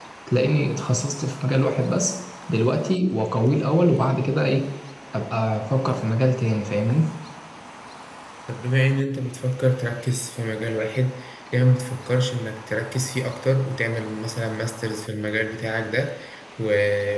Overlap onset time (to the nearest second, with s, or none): none